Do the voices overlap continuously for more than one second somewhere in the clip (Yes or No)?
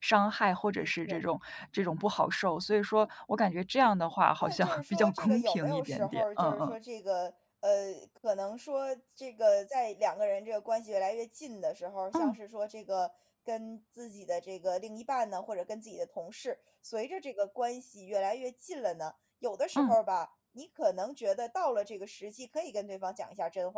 Yes